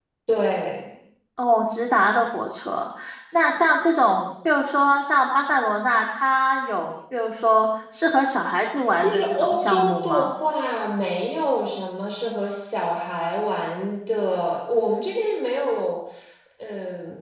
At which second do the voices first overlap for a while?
8.9 s

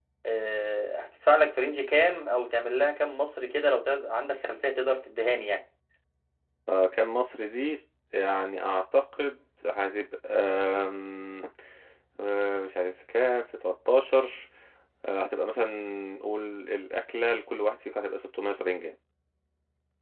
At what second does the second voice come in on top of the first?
none

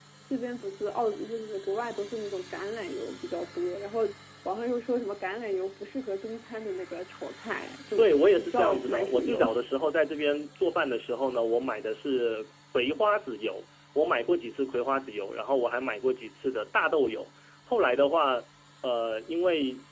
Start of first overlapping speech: 8.0 s

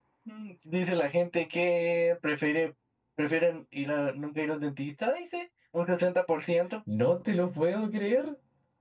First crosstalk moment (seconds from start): none

